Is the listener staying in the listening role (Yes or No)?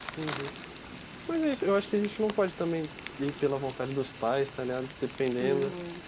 Yes